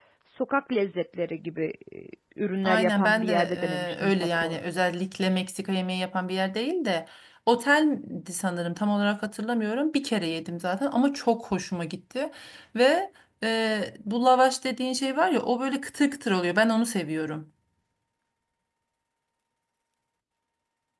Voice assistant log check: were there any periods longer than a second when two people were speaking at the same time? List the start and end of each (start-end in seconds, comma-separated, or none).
2.6-4.6